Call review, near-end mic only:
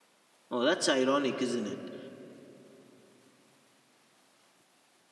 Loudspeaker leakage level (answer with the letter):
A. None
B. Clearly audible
A